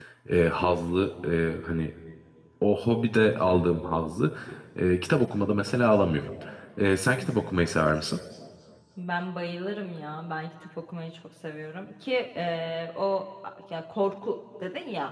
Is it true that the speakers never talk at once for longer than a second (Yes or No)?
Yes